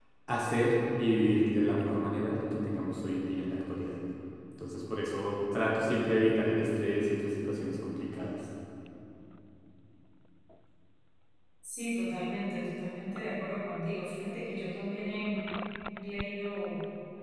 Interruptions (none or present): none